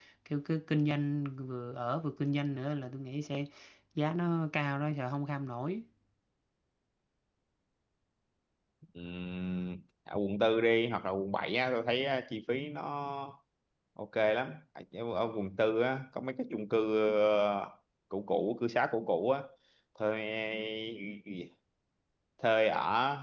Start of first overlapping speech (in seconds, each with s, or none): none